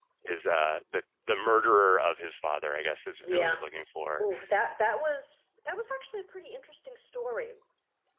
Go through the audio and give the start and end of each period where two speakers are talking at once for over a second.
none

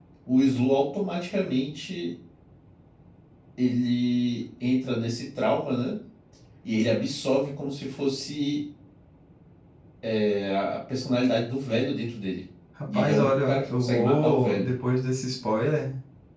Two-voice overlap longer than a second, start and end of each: 12.9-14.8

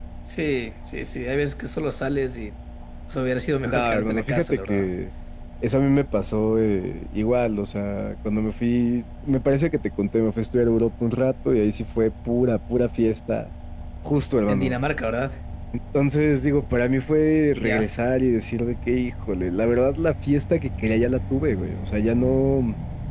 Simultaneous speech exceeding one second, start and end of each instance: 3.6-4.9

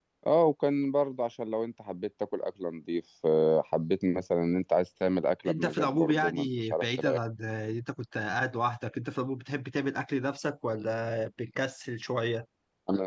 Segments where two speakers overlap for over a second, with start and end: 5.5-7.2

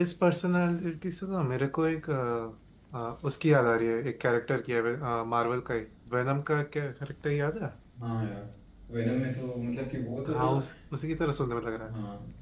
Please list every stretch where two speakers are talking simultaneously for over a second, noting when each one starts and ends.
none

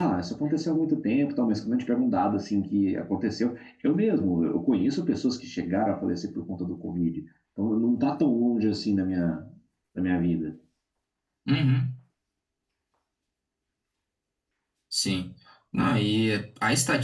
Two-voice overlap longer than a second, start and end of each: none

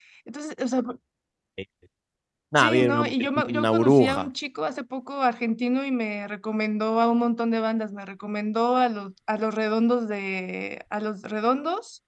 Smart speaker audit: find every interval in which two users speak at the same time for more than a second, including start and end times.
2.6-4.3

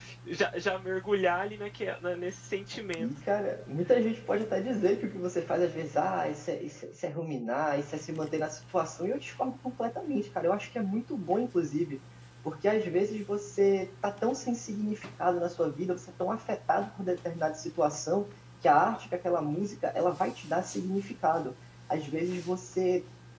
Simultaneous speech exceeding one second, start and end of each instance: none

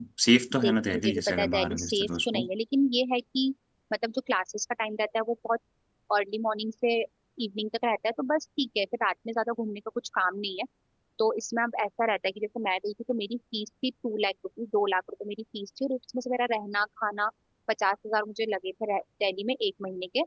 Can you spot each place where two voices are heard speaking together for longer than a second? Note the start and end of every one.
0.6-2.5

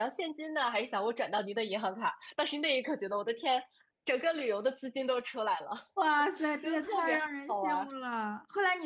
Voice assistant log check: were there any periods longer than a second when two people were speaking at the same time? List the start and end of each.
6.6-7.8

